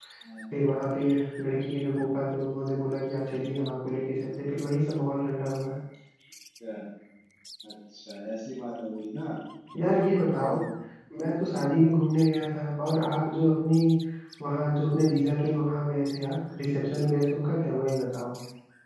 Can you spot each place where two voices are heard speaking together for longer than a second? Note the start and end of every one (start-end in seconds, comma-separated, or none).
none